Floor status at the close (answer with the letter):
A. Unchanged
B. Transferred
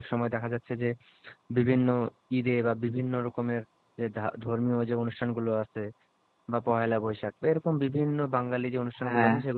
A